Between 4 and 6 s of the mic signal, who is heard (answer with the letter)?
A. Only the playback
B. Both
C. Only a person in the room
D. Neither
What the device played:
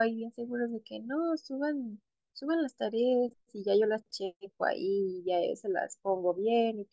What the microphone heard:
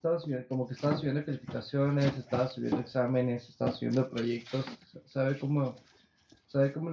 C